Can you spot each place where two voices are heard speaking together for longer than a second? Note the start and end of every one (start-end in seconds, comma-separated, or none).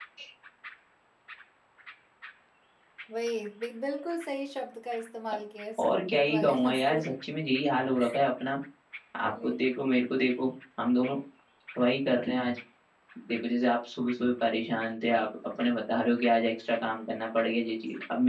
5.8-7.1